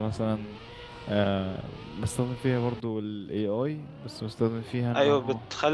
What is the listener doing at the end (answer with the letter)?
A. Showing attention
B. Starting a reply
B